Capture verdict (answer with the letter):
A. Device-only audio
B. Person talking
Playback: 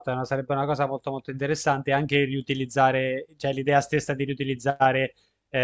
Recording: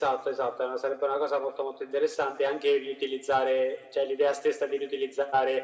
A